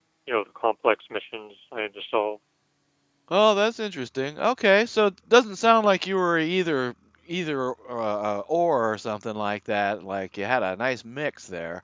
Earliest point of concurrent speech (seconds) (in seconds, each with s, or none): none